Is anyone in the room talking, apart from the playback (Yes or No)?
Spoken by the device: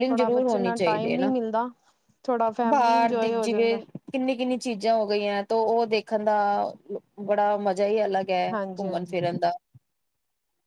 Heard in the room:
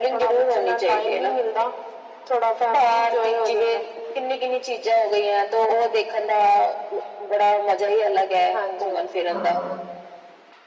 Yes